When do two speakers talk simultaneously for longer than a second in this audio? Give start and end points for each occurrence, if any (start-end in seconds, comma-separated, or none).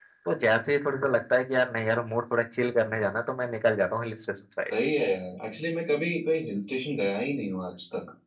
none